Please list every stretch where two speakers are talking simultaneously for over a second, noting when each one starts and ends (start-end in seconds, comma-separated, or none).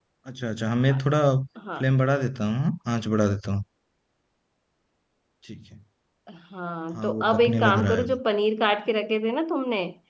6.9-8.2